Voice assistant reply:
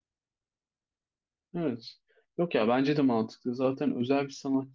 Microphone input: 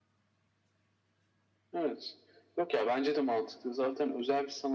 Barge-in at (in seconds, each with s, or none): none